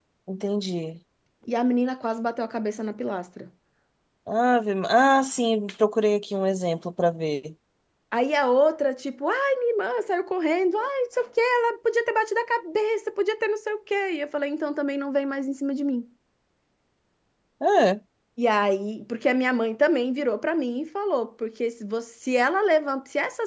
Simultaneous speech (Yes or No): No